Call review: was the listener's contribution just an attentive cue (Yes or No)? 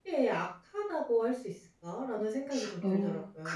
No